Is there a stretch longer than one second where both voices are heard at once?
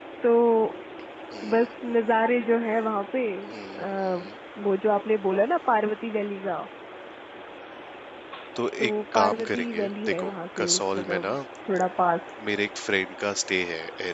Yes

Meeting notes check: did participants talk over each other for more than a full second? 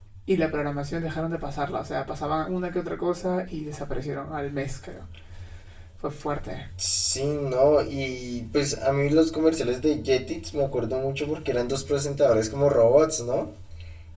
No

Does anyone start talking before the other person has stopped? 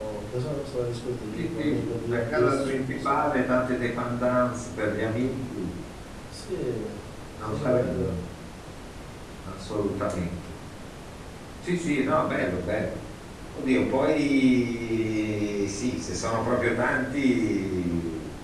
Yes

